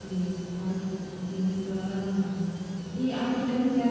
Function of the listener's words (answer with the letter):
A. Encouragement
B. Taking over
A